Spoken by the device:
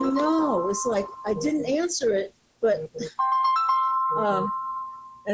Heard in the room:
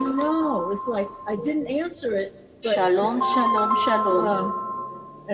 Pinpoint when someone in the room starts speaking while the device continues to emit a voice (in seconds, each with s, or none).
2.6 s